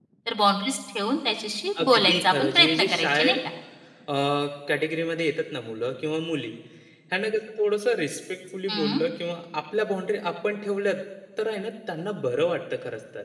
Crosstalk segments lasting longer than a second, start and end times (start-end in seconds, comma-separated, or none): 1.8-3.3